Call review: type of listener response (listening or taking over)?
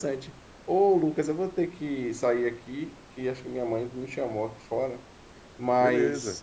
listening